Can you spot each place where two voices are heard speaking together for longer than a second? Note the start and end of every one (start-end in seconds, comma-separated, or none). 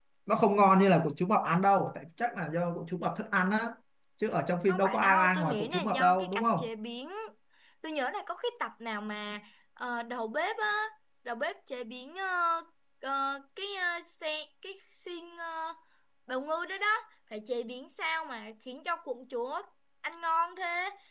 4.7-6.7